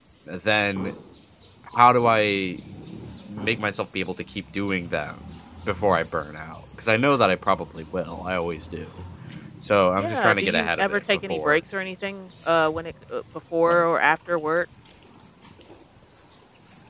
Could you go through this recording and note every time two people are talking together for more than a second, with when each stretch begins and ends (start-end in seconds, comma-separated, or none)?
10.0-11.6